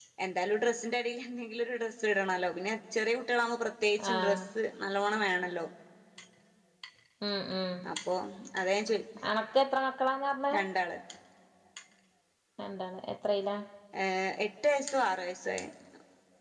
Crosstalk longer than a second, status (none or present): none